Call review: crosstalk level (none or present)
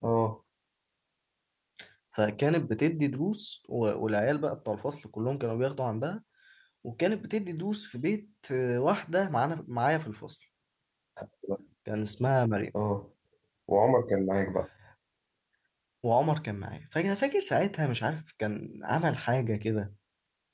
none